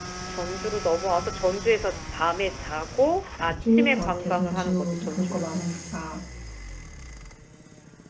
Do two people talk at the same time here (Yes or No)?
Yes